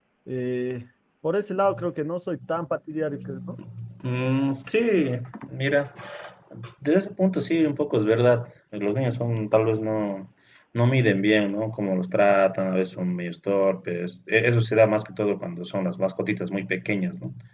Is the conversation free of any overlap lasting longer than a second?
Yes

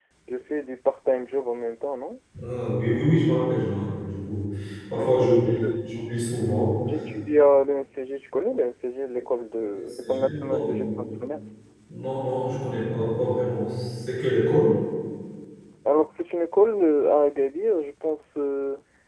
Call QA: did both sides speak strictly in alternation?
No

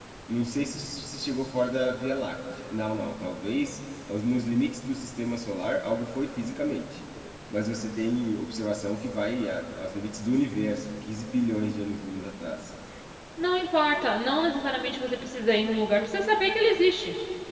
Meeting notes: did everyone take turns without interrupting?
Yes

